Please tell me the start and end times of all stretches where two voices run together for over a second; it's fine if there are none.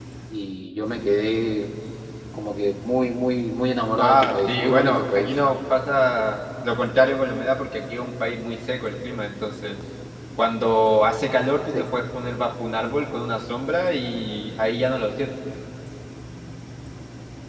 4.0-5.3

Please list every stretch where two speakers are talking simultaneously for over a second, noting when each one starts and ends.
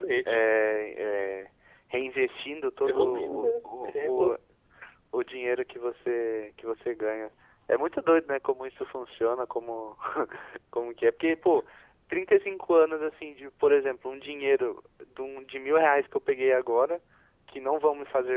2.8-4.3

